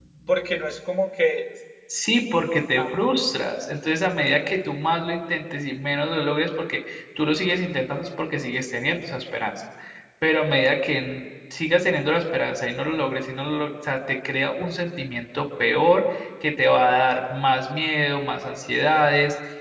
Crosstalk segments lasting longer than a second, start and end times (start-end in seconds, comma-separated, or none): none